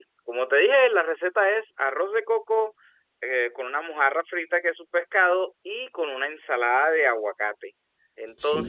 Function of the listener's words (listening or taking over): listening